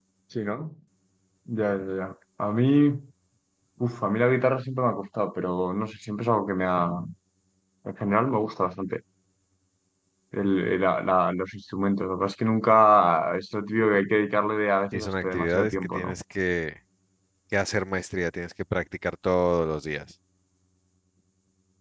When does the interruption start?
14.9 s

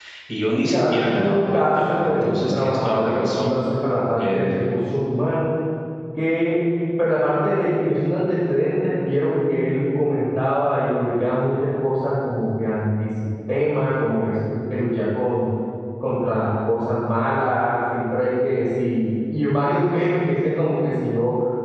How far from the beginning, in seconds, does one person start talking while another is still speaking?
0.6 s

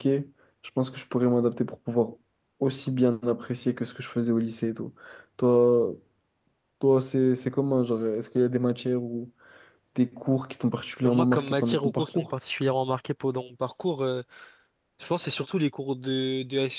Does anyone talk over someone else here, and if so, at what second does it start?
11.0 s

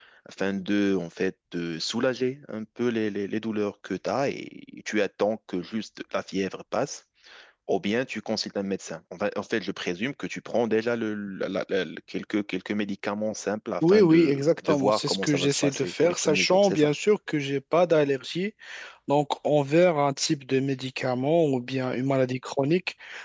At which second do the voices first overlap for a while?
13.8 s

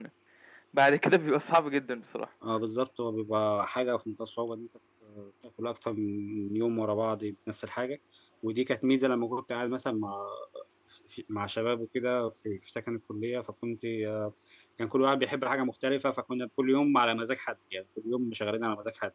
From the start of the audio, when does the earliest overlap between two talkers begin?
none

